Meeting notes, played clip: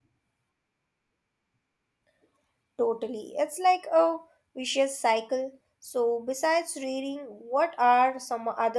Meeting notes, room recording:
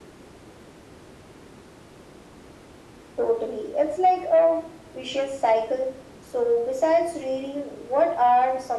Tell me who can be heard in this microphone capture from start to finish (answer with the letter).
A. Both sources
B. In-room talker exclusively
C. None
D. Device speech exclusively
D